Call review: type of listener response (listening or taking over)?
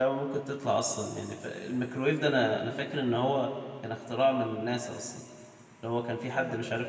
listening